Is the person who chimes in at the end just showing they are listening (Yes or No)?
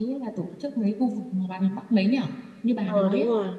No